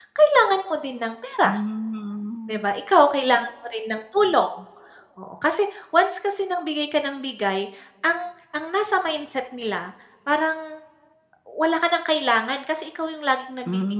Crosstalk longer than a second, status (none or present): none